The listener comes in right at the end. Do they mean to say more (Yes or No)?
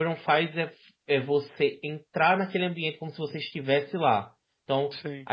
No